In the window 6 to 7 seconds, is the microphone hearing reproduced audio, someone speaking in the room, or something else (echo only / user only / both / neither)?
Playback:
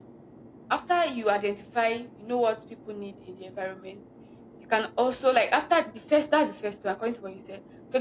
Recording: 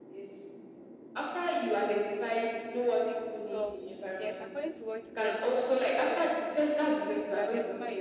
both